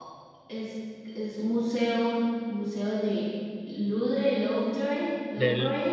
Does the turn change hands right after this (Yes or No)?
Yes